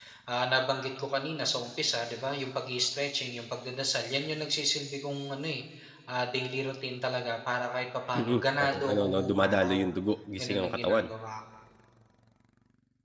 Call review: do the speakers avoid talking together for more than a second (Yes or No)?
No